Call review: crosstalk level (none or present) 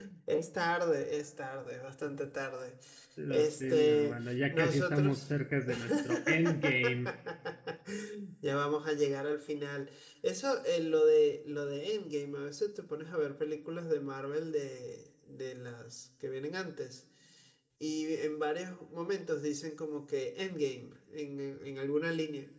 present